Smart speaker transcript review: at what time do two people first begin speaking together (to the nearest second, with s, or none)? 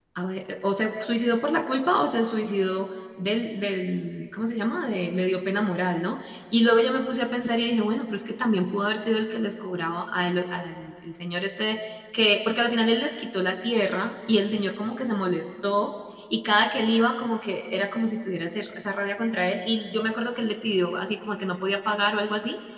none